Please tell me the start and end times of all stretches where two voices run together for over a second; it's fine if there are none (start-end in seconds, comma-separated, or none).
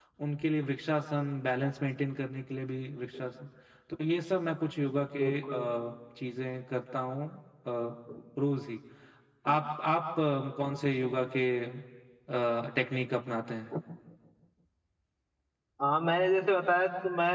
none